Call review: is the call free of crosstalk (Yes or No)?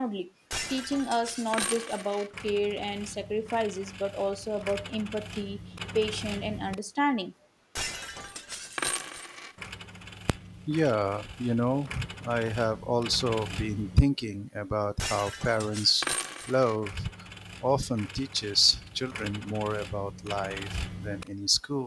Yes